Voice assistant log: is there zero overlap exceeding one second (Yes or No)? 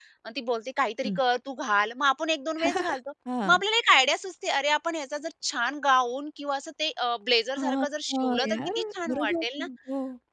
No